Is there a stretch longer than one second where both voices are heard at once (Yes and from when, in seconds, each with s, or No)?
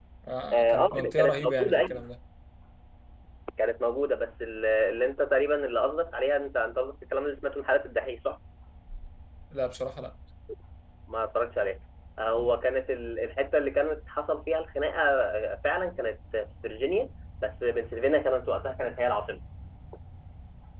Yes, from 0.5 s